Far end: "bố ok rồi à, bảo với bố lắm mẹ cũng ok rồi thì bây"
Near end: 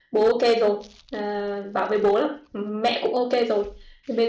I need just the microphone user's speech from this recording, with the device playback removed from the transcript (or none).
none